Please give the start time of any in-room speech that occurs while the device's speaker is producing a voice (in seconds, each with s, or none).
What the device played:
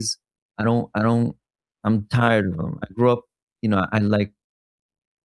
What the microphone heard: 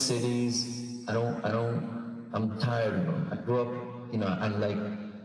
none